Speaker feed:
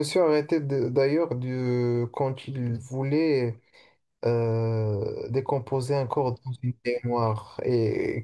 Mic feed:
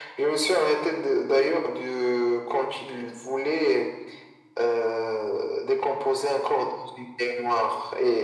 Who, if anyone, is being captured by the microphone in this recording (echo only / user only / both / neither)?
echo only